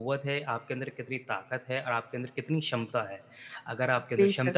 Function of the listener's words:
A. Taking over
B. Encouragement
B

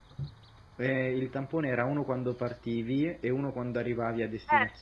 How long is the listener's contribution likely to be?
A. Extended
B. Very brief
A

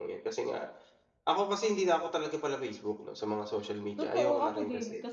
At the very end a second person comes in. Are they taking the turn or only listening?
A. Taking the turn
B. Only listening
A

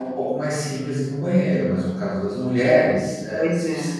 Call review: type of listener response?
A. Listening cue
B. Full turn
A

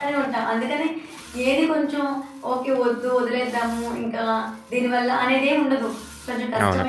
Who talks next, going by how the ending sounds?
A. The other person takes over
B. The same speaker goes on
B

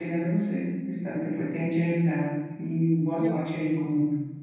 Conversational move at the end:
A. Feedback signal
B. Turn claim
A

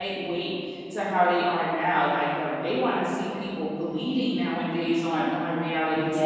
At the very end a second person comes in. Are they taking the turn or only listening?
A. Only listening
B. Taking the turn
B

